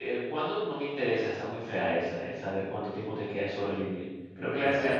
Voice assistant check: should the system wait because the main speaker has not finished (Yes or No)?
Yes